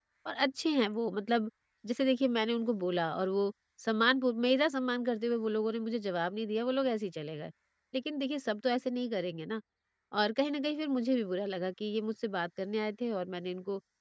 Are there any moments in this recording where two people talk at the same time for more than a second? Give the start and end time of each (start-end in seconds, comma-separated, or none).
none